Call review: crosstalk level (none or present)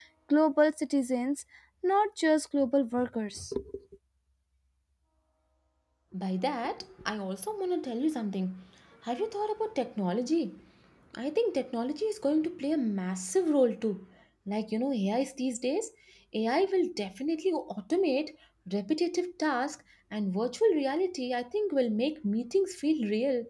none